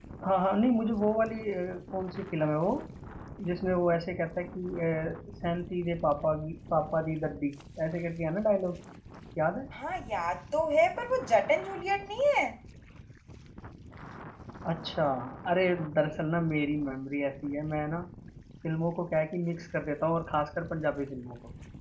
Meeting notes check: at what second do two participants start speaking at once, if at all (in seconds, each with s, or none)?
none